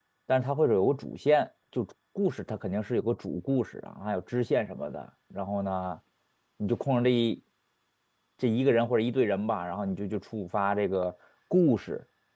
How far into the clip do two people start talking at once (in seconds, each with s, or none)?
none